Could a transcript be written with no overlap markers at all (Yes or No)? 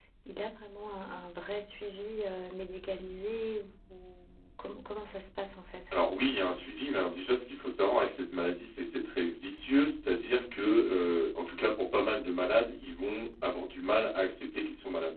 Yes